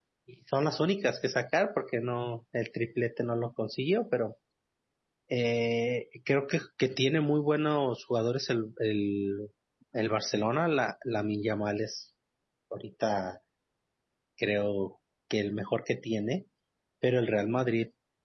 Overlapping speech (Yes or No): No